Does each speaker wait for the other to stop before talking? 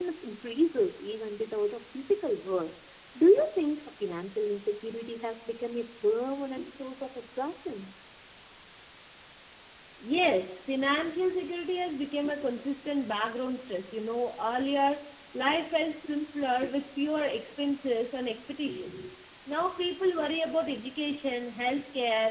Yes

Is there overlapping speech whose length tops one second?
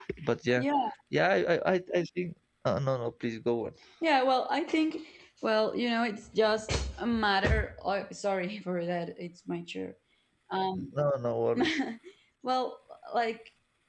No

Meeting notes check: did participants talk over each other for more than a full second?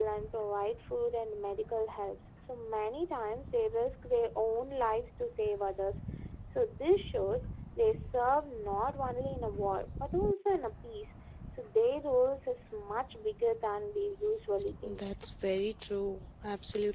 No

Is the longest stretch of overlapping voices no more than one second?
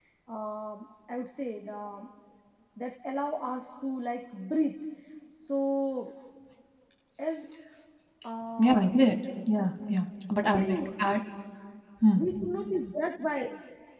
Yes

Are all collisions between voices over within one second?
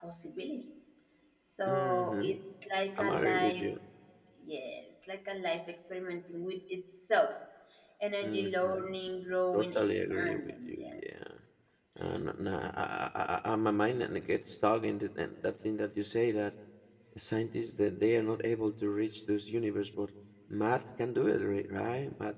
No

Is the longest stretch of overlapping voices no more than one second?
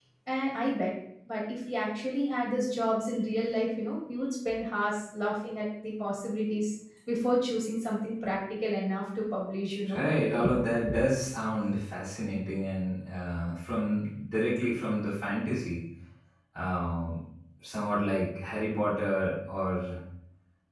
Yes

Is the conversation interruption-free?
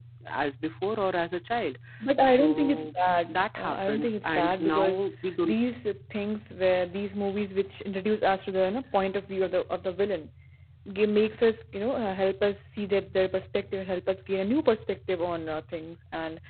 No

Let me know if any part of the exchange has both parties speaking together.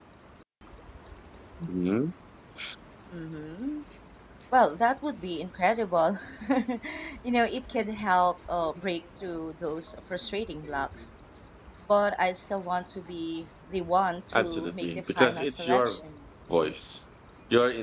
Yes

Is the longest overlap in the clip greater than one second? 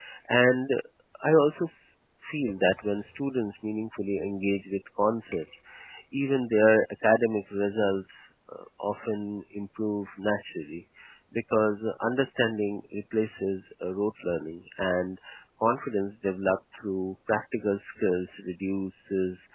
No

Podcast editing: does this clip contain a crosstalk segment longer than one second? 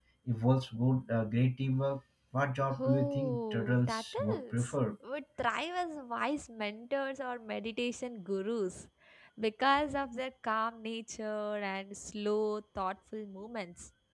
Yes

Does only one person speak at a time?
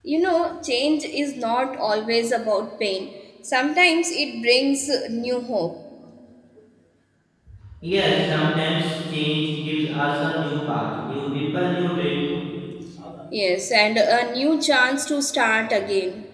Yes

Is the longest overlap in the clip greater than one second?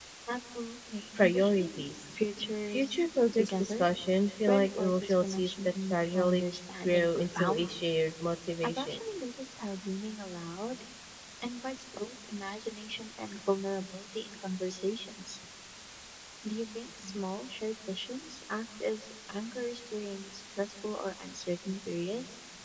Yes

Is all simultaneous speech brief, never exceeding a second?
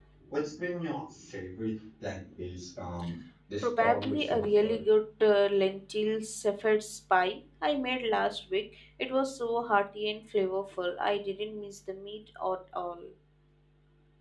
No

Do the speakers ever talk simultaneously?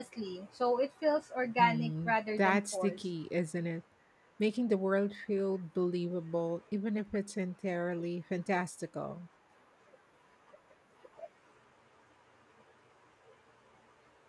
Yes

